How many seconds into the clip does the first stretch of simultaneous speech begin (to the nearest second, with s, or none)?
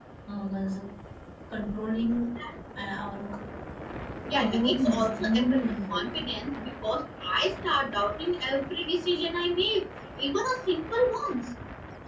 4 s